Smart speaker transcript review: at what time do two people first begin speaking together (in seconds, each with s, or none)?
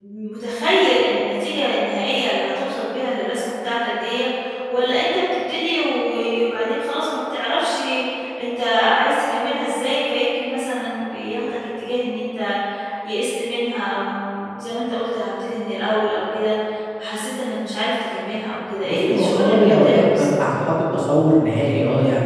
18.8 s